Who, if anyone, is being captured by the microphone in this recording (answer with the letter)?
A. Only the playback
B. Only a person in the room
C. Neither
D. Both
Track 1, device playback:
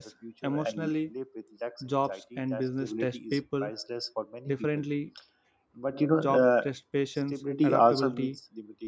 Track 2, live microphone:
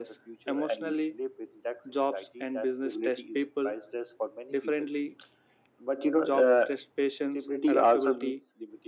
A